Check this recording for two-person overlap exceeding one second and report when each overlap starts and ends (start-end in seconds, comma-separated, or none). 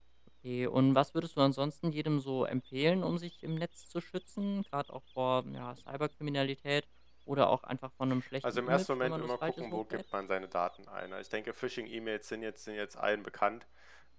8.5-10.0